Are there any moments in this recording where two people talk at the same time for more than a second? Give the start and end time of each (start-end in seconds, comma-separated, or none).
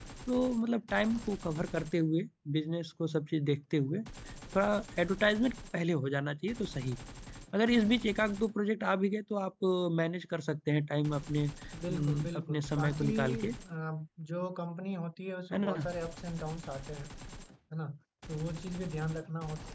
11.9-13.5